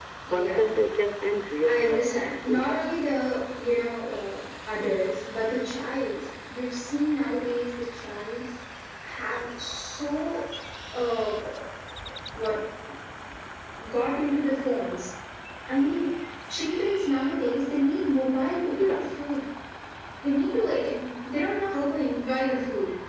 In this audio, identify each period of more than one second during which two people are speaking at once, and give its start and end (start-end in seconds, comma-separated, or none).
1.6-3.1